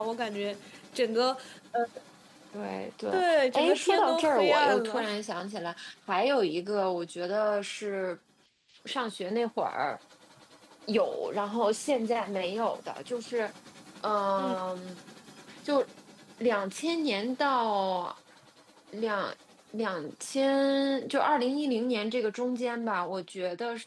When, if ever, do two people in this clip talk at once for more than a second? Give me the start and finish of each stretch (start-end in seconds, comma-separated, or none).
3.5-5.1